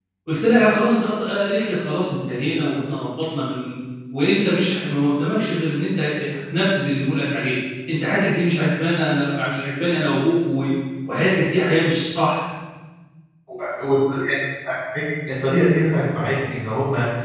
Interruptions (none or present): none